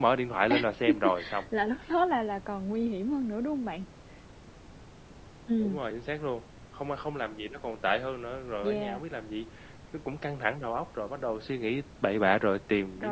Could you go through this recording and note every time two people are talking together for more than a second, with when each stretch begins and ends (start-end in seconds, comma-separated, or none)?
none